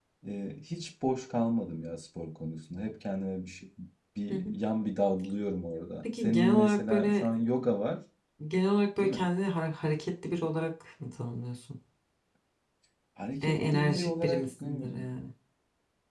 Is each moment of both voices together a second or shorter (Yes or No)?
No